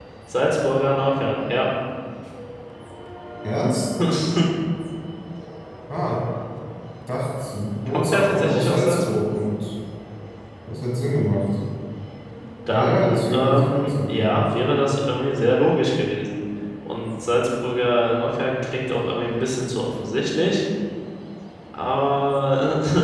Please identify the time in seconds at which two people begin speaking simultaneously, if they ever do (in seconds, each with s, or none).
7.9 s